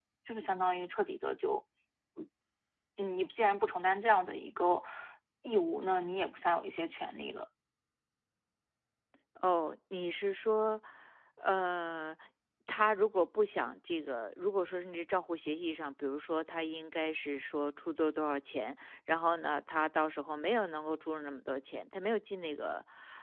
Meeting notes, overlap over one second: none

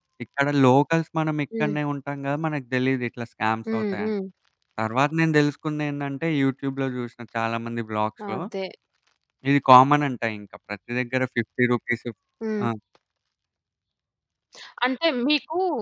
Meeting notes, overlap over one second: none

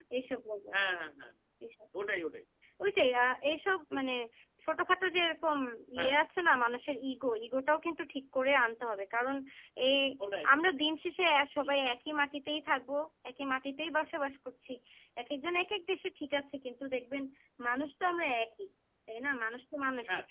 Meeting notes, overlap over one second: none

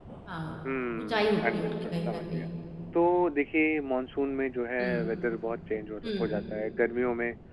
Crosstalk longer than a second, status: present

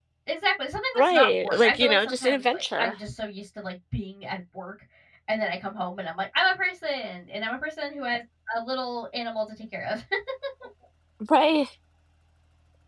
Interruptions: present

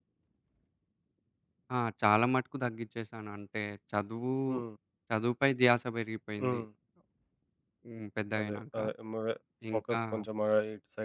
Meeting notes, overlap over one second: none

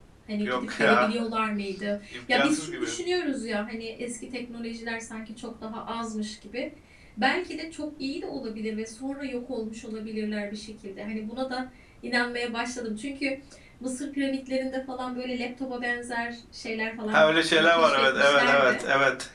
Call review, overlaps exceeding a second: present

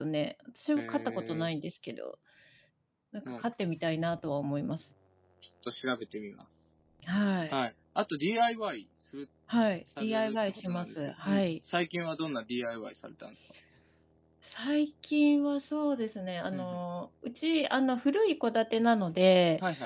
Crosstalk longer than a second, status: present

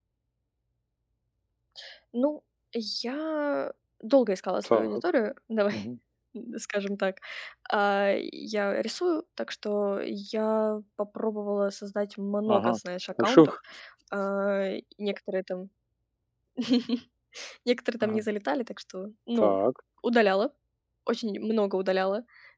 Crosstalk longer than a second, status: none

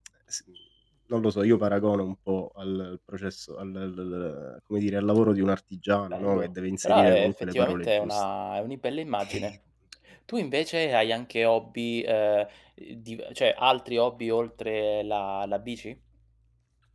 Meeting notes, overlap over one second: present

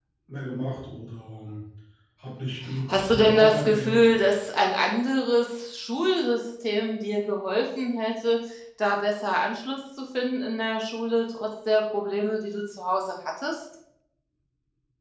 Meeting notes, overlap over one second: present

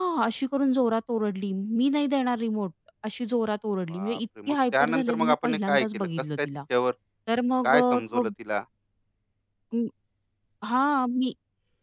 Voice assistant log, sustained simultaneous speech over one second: present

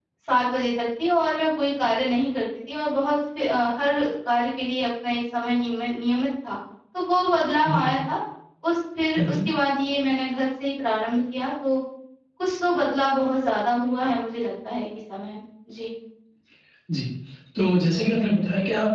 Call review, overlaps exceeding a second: none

